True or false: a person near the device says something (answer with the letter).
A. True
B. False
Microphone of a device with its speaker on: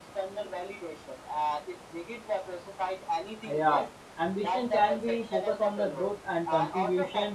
A